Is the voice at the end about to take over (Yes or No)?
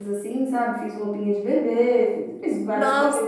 Yes